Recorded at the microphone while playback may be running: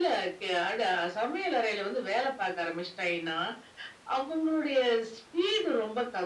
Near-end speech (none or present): none